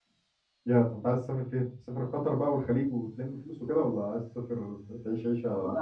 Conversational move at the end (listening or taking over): taking over